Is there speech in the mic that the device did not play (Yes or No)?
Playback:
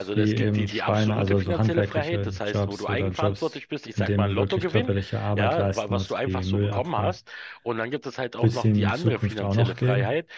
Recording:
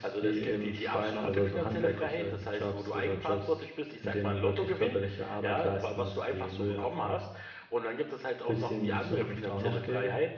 No